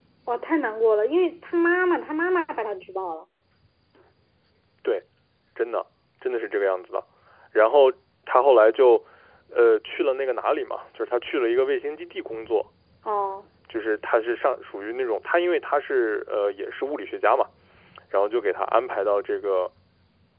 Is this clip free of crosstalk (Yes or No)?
Yes